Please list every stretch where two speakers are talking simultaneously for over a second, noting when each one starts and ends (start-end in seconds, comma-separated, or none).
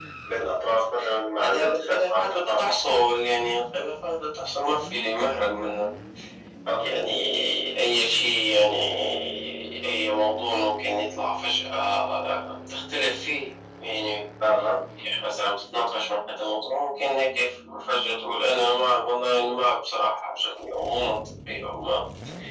1.4-2.7